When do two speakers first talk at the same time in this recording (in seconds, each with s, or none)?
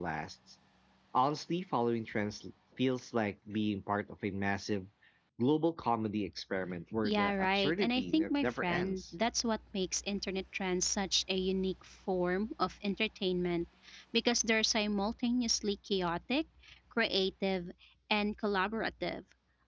7.0 s